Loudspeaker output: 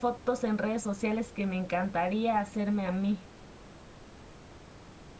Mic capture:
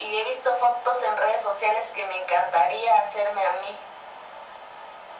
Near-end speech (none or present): none